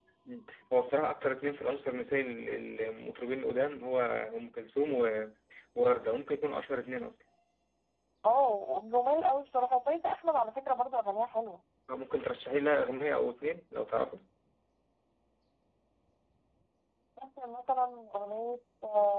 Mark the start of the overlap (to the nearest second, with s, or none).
none